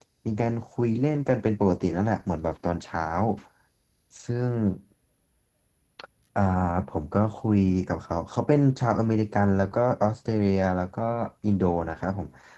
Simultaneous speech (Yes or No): No